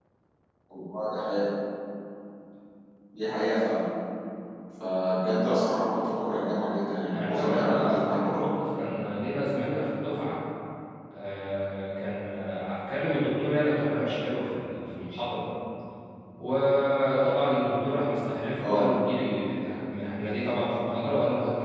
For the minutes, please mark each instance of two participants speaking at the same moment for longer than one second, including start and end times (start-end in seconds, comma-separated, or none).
7.1-8.5